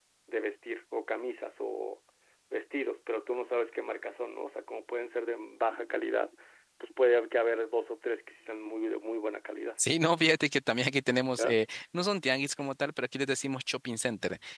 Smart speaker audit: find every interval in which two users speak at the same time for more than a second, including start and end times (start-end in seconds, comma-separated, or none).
none